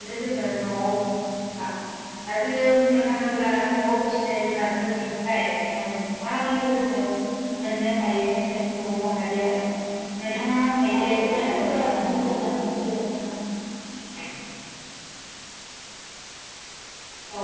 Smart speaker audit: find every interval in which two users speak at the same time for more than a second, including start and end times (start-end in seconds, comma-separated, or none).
10.9-12.2